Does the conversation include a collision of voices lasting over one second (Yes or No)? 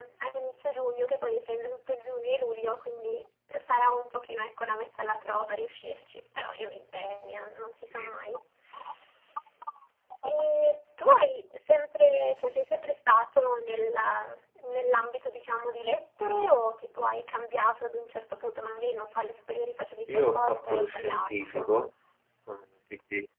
Yes